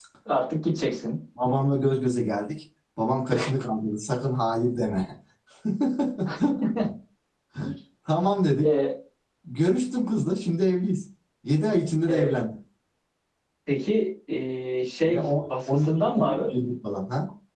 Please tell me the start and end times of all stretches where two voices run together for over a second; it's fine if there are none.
15.1-16.5

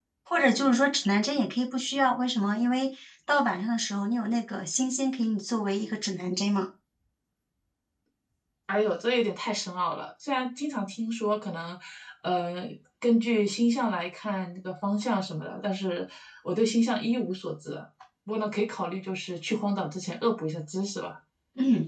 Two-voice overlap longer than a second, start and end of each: none

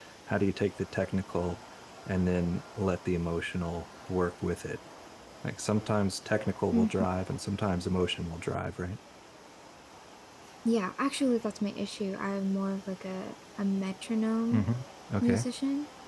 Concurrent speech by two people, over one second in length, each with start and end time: none

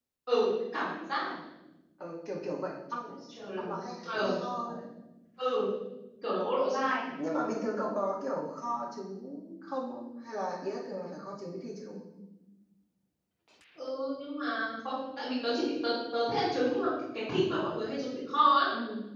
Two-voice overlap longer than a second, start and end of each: none

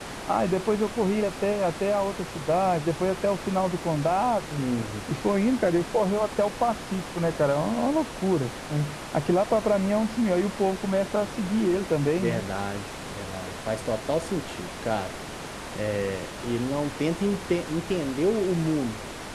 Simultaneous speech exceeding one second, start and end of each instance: none

